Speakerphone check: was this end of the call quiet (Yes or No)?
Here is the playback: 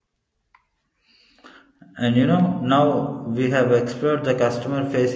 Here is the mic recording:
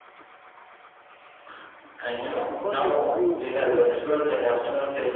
No